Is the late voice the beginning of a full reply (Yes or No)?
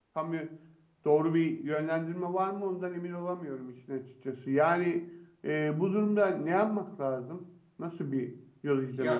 Yes